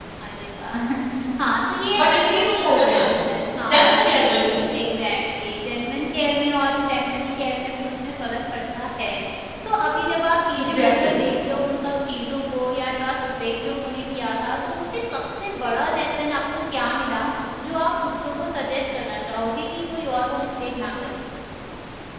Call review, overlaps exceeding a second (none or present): present